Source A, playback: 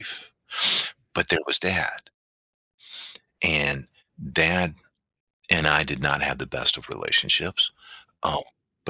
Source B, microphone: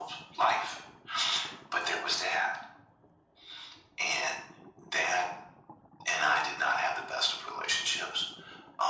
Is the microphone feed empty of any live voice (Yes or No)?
Yes